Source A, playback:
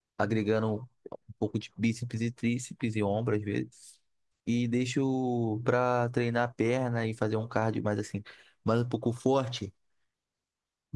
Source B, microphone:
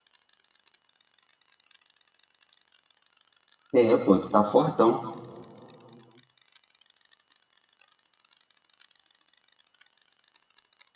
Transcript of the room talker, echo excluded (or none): É, pô, tu tá fortão.